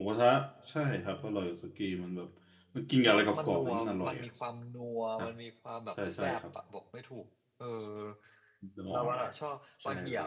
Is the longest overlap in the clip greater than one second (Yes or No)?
Yes